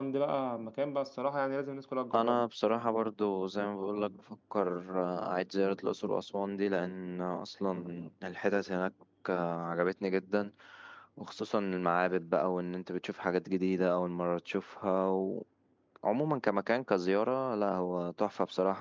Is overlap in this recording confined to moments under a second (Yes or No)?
Yes